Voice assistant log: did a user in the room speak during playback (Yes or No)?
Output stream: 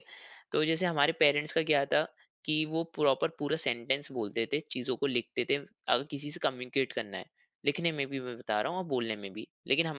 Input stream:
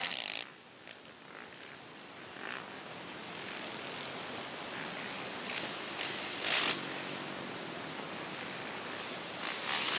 No